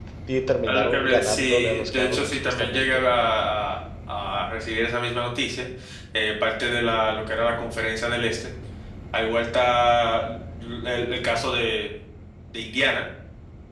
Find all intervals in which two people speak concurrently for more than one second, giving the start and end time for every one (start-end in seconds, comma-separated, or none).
0.7-3.0